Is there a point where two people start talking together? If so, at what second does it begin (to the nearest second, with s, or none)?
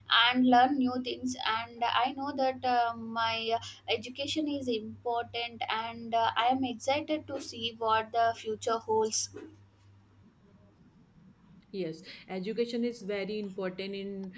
none